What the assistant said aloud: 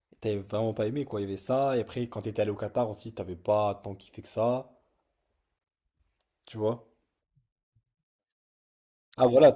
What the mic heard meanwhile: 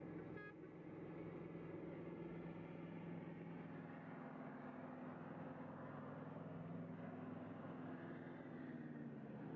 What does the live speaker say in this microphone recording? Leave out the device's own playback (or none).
none